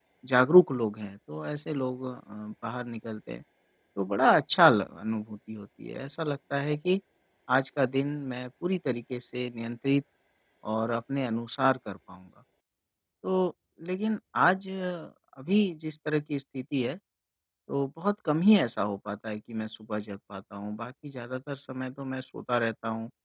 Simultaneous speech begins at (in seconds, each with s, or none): none